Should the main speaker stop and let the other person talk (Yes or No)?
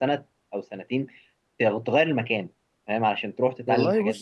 Yes